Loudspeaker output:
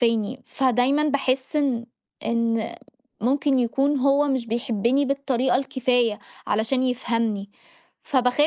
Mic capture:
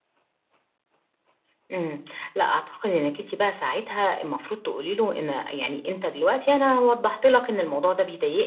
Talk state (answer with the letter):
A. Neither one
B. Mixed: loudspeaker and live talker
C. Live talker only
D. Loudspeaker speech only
C